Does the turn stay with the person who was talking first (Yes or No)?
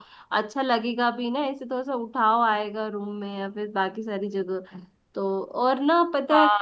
No